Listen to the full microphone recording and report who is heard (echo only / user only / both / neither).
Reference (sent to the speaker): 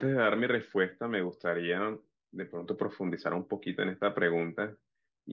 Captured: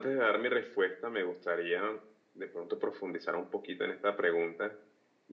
echo only